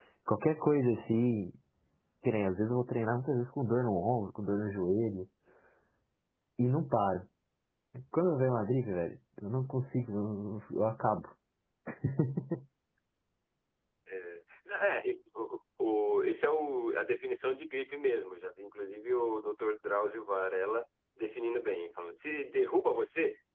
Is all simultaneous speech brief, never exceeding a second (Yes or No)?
Yes